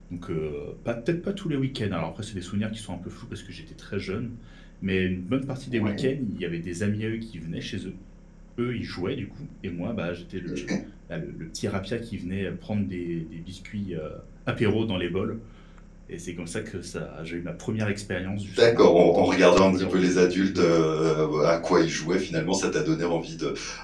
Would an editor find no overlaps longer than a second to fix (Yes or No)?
No